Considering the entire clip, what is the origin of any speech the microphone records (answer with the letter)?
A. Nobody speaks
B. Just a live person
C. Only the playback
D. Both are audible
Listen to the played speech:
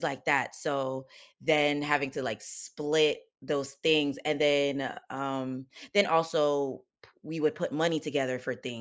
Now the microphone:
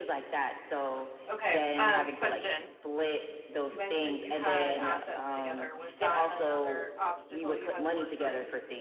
D